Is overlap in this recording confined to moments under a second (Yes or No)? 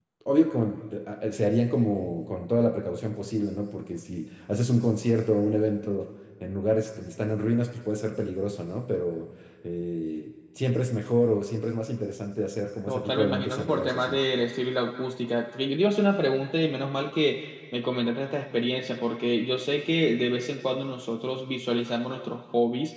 No